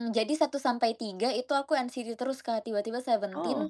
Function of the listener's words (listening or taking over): listening